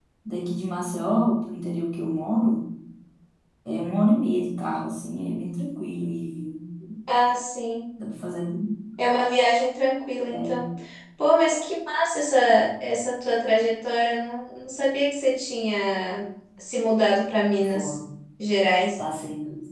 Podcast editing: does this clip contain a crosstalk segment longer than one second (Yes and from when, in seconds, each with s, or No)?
No